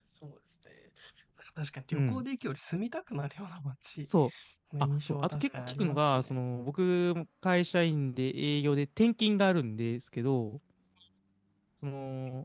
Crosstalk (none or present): present